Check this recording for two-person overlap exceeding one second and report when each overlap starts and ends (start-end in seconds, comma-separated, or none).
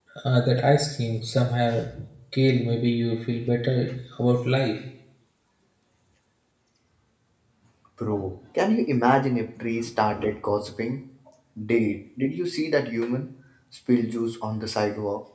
none